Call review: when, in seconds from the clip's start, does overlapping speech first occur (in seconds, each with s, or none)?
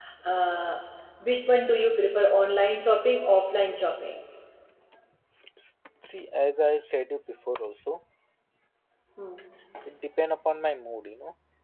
none